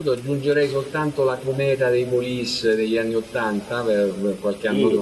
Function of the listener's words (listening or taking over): taking over